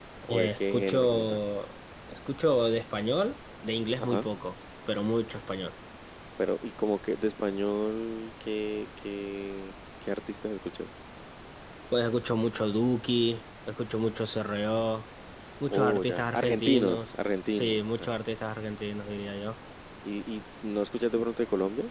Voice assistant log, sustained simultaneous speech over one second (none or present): present